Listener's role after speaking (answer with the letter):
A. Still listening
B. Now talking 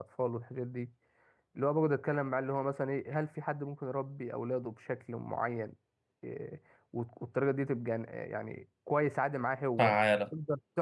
A